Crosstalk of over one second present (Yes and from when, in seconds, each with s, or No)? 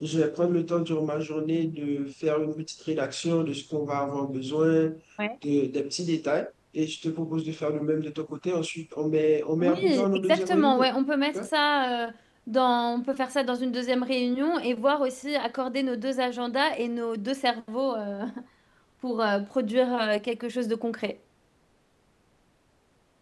Yes, from 9.6 s